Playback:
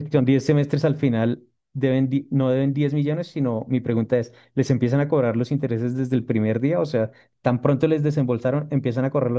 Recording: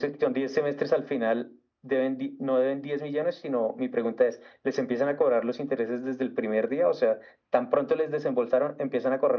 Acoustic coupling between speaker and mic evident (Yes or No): Yes